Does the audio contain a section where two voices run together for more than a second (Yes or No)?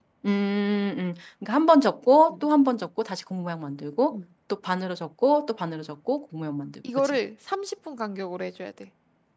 No